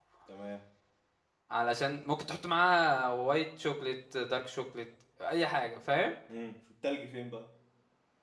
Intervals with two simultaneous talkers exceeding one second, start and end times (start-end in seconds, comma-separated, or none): none